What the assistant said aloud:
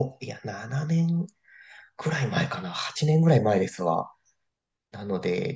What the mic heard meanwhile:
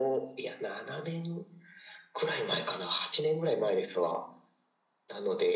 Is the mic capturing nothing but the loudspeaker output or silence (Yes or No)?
Yes